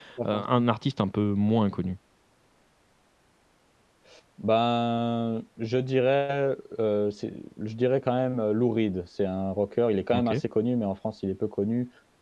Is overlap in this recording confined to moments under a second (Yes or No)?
Yes